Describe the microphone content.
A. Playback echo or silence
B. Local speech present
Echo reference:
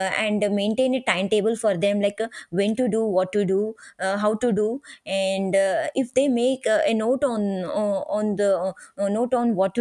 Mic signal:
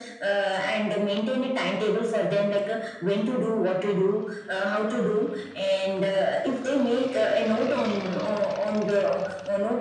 A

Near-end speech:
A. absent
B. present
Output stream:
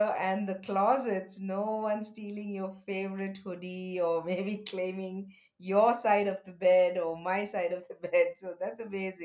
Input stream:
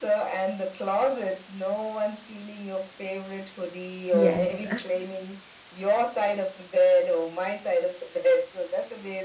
B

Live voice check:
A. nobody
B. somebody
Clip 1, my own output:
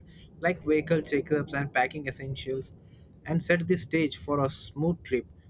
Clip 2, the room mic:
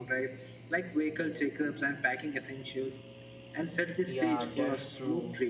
B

